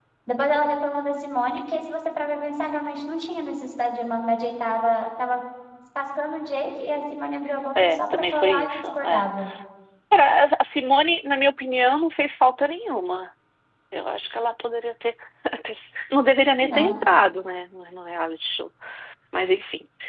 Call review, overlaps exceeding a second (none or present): present